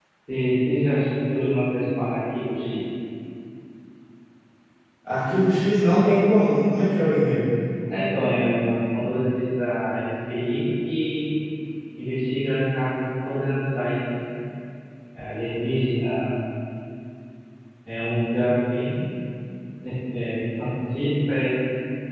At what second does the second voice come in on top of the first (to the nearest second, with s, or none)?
none